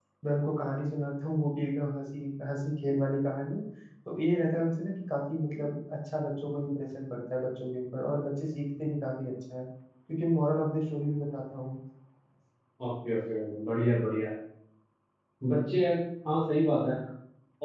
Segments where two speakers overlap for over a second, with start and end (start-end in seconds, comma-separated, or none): none